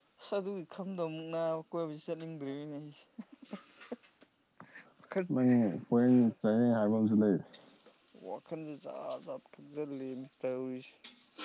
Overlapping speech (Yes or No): No